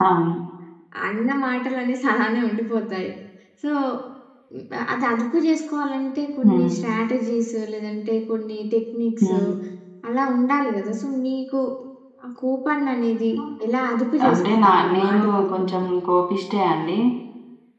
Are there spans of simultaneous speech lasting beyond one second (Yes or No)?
Yes